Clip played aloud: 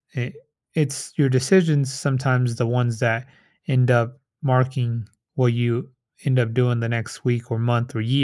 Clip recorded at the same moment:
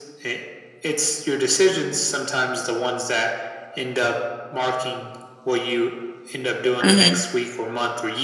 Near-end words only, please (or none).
hmm